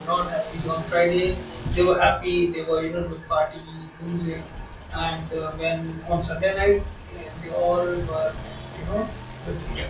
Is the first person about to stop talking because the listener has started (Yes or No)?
No